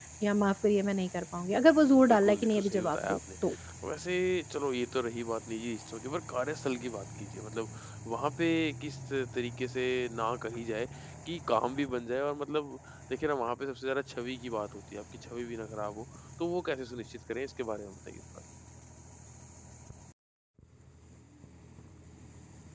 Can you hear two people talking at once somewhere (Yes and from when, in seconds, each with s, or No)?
Yes, from 1.9 s